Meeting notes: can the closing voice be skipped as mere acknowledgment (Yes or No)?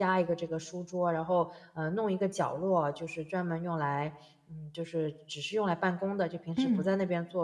Yes